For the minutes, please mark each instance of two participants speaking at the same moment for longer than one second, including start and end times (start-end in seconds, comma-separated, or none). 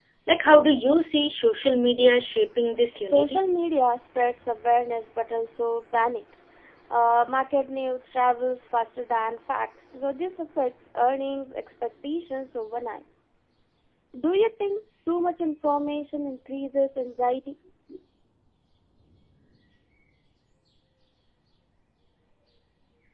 none